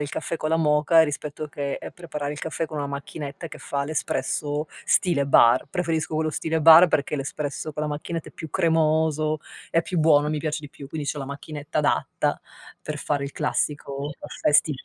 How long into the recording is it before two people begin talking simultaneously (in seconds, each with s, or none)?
none